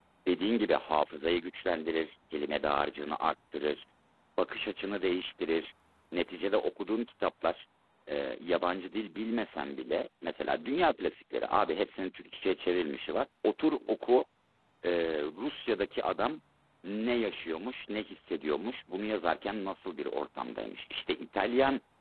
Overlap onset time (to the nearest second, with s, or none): none